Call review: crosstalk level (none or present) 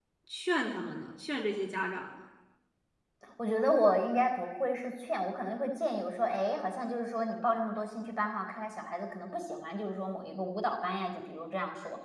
none